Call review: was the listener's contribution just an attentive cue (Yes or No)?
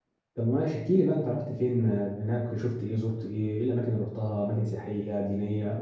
No